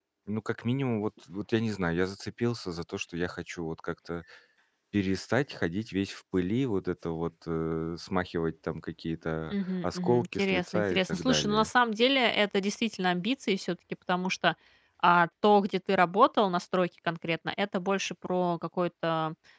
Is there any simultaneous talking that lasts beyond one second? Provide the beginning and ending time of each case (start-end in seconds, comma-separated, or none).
9.5-11.7